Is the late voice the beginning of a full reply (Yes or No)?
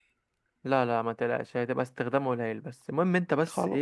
No